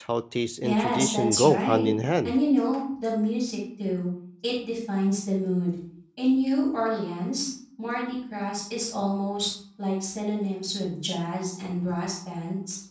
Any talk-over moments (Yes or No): Yes